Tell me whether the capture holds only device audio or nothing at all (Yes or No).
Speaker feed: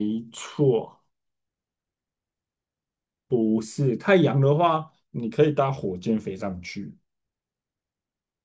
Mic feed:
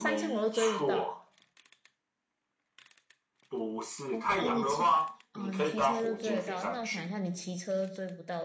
No